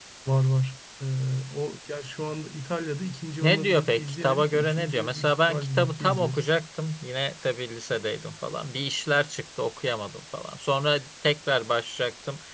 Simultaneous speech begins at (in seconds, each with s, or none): 3.4 s